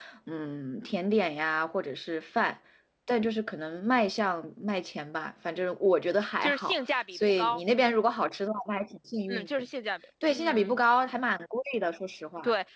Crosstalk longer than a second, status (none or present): present